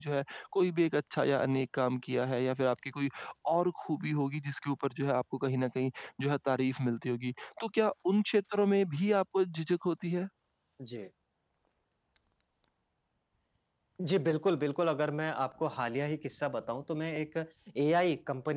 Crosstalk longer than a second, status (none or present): none